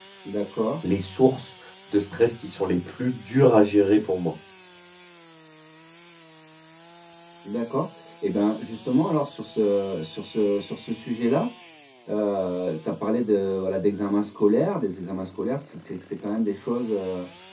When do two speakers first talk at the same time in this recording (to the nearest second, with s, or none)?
none